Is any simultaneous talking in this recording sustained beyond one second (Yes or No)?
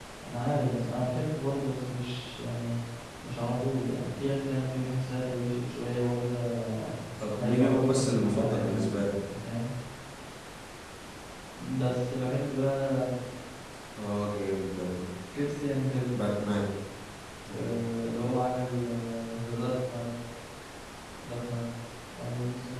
Yes